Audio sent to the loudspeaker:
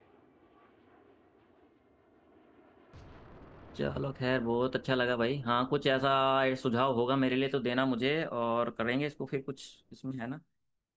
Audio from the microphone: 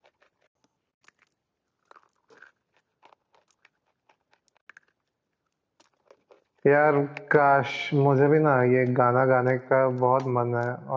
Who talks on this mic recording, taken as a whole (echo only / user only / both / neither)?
user only